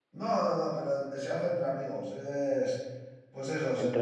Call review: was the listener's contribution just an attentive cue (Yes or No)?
Yes